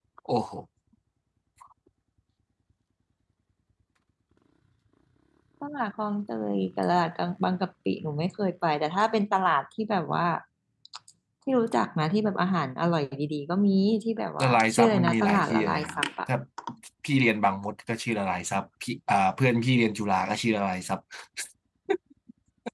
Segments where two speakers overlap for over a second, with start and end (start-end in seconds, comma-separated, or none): 14.4-16.0